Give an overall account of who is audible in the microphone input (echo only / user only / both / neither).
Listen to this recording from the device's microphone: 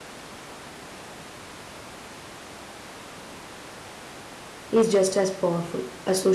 user only